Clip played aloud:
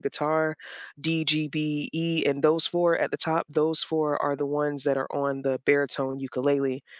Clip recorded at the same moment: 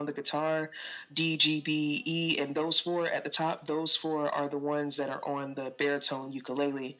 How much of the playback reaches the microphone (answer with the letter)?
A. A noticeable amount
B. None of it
A